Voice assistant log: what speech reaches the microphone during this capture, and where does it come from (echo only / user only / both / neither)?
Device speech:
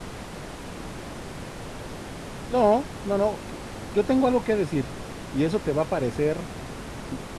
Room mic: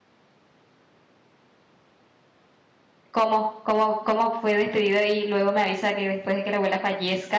user only